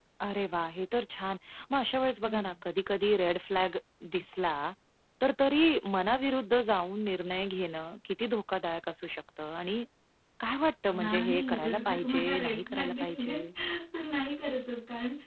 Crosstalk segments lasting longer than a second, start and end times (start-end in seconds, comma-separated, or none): 10.9-13.4